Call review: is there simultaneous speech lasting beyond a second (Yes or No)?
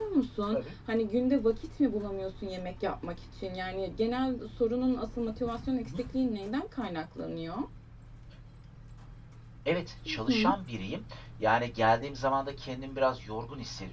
No